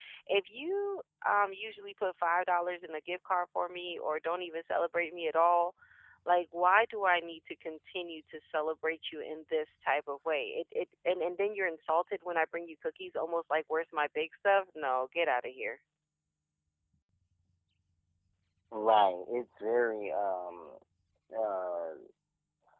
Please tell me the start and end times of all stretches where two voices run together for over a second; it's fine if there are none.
none

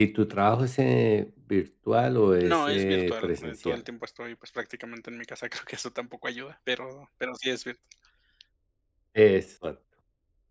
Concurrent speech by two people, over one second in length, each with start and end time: 2.4-3.8

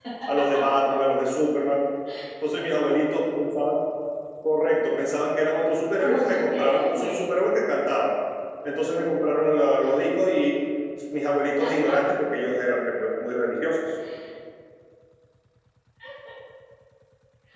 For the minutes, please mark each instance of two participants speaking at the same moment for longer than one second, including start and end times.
6.0-7.3

